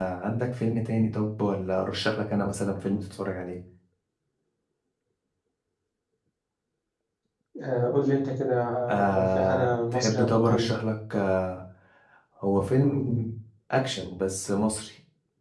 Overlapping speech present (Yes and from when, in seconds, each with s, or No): Yes, from 9.1 s